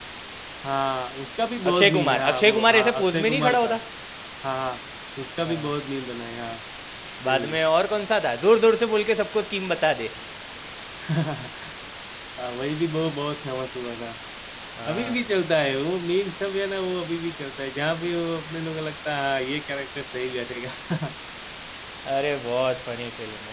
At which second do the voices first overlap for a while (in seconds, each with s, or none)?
1.7 s